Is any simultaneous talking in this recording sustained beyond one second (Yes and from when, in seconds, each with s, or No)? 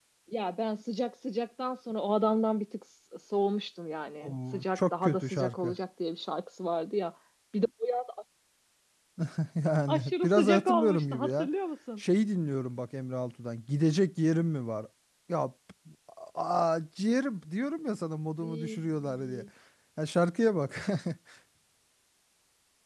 Yes, from 4.2 s